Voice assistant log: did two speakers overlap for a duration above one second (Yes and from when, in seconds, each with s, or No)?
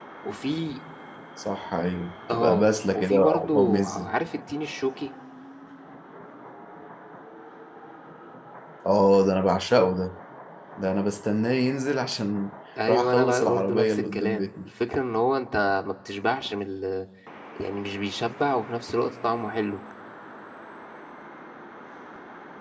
Yes, from 2.3 s